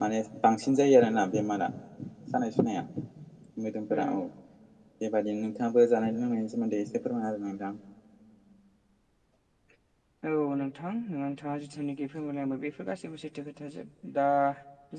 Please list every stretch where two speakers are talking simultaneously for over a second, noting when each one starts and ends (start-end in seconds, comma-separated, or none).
none